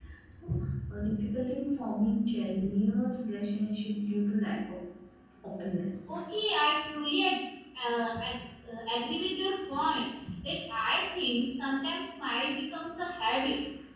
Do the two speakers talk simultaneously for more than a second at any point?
No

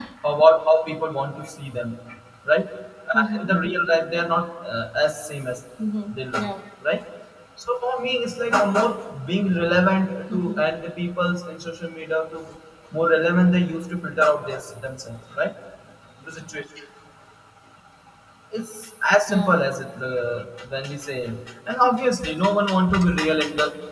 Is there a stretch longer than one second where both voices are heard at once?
No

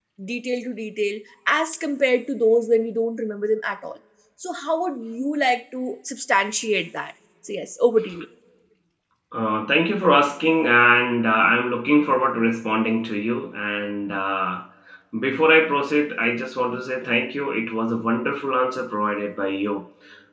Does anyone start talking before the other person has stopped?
No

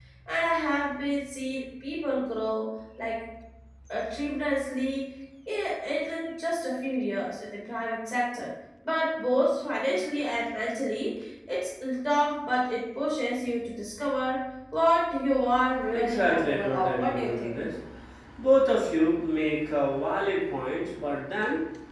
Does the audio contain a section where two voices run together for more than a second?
Yes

